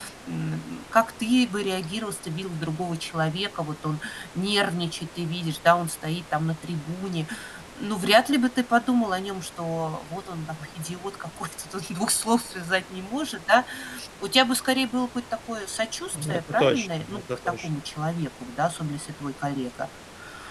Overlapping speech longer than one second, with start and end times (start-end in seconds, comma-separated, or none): 16.1-17.7